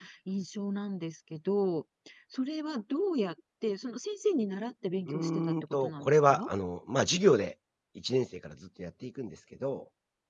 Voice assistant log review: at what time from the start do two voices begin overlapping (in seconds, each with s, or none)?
5.1 s